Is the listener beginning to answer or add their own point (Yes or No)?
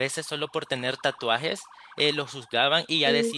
No